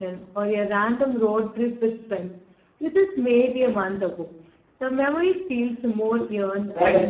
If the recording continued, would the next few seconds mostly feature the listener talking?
Yes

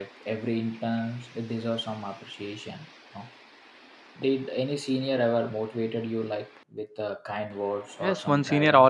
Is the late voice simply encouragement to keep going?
No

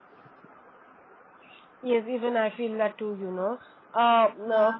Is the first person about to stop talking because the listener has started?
No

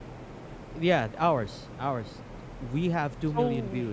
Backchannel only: No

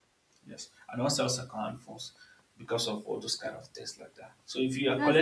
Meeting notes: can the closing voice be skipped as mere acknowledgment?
Yes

